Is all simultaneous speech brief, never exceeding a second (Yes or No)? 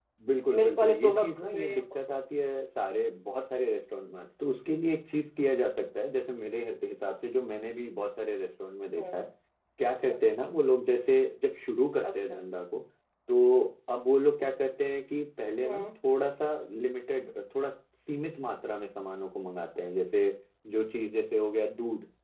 No